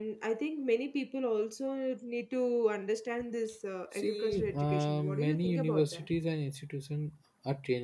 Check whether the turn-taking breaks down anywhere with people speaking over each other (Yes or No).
Yes